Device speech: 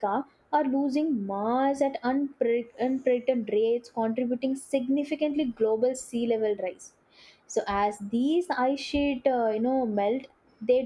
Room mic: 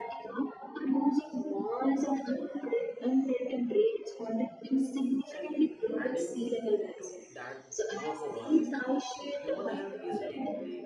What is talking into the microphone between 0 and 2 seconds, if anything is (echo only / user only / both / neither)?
echo only